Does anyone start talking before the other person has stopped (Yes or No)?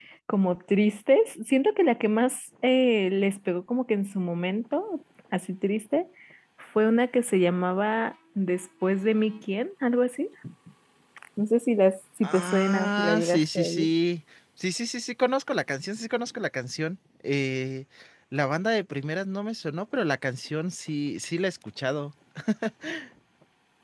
Yes